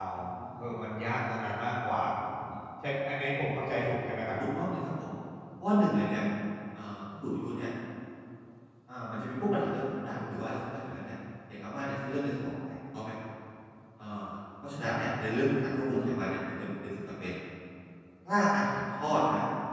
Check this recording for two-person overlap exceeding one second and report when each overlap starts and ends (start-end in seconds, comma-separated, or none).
none